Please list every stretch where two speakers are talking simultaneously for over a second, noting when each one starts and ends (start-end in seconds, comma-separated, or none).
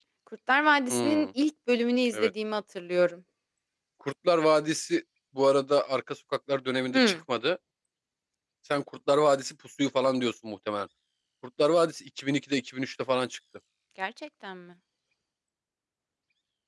none